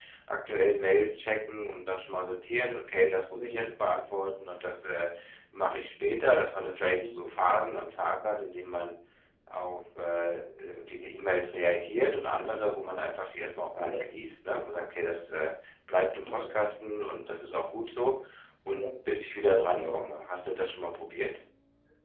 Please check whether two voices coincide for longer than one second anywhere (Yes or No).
No